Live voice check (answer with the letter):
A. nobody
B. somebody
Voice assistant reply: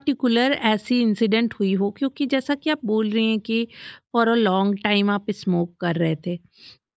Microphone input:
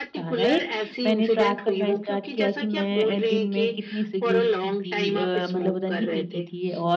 B